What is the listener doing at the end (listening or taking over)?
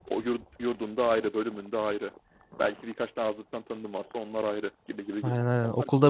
taking over